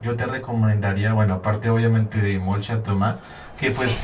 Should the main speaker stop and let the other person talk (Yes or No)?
No